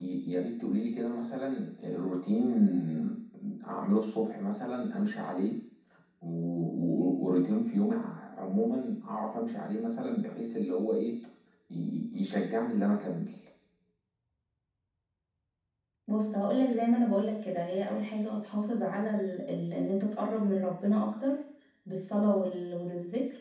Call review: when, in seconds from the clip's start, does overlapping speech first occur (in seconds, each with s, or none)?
none